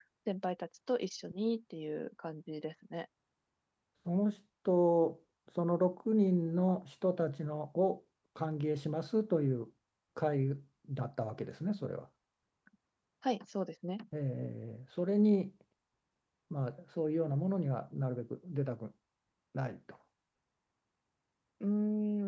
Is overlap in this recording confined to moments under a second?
Yes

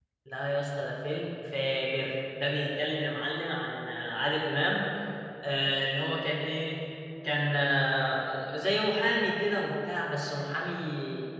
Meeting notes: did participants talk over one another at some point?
No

